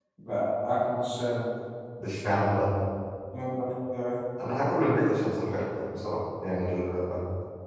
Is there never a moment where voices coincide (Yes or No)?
Yes